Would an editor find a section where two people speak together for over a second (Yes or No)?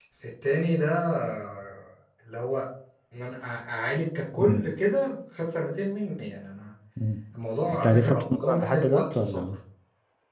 Yes